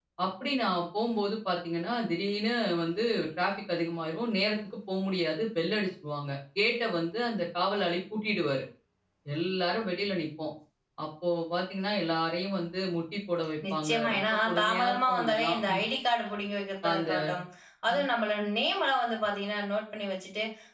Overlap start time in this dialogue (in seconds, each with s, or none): 13.7 s